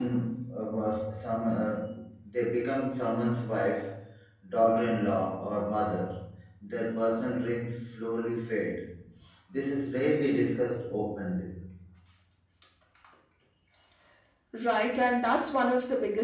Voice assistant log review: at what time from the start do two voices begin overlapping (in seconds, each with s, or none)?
none